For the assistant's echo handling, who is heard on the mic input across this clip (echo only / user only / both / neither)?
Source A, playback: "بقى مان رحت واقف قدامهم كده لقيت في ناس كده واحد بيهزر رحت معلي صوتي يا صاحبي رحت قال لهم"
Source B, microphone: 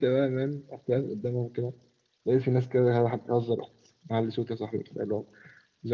echo only